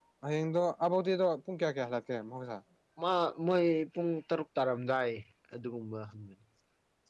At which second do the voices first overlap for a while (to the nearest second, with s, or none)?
none